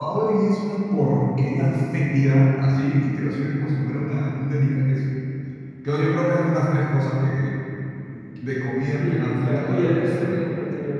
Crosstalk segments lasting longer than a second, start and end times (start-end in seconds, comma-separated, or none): 9.0-10.4